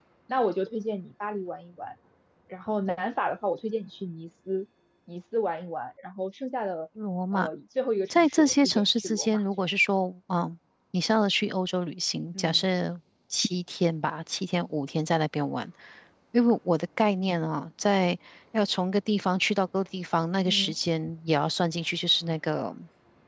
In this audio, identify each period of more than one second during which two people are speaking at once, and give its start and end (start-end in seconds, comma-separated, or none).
8.1-9.7